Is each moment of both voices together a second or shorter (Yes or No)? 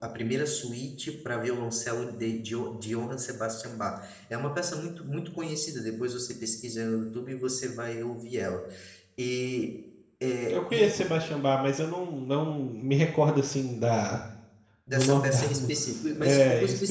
No